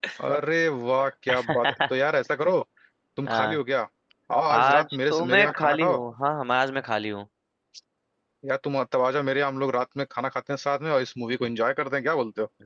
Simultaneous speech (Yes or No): Yes